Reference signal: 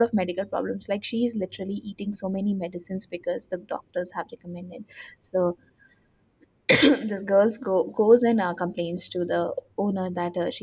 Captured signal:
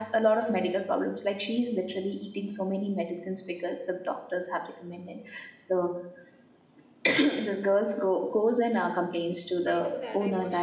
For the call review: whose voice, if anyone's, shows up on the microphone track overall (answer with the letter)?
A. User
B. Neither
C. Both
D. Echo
C